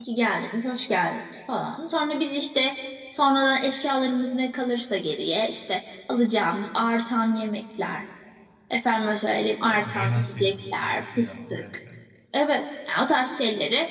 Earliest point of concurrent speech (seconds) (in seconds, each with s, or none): 9.7 s